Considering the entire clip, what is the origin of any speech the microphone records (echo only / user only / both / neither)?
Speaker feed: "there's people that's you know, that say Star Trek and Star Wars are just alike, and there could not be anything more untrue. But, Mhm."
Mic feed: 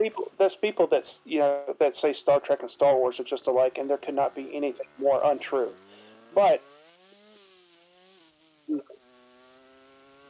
echo only